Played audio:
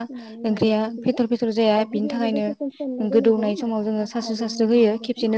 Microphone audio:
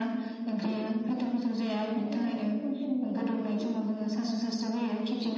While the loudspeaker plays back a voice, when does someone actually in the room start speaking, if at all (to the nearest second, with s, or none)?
none